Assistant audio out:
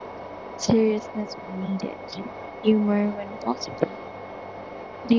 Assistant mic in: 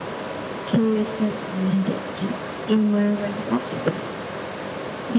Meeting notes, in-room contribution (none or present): none